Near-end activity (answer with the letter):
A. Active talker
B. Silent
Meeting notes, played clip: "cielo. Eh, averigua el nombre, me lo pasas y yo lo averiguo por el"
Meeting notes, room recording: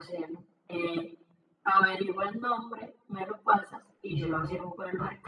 A